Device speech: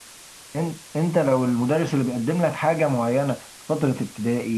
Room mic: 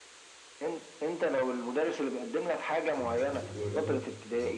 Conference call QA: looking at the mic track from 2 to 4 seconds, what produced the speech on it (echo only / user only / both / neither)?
both